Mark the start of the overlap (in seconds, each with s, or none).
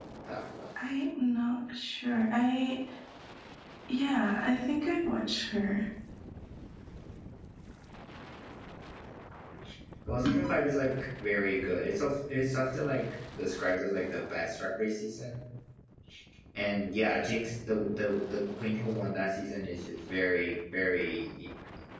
none